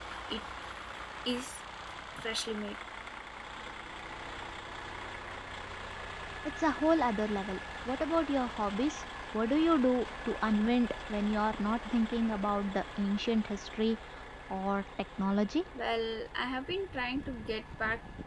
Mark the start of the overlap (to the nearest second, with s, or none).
none